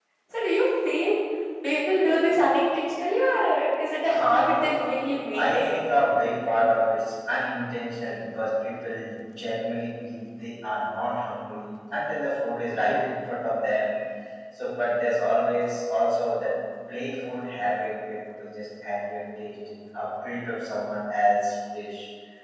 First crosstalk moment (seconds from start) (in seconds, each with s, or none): 4.1 s